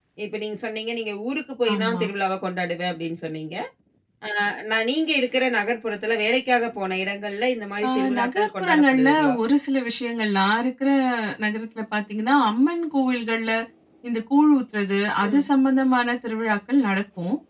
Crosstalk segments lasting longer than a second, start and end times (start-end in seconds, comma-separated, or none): 7.8-9.4